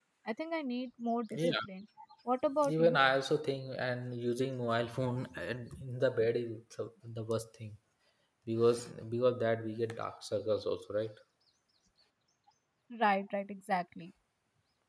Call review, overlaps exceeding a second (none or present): none